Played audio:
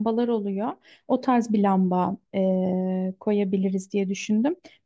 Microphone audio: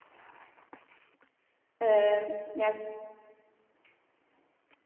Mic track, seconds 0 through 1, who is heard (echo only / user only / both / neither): neither